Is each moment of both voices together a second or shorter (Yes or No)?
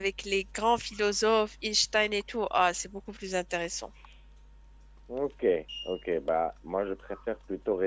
Yes